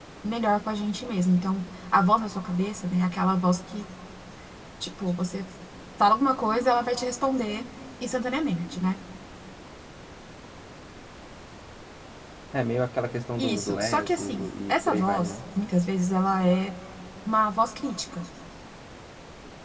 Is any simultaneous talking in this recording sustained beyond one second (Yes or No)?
Yes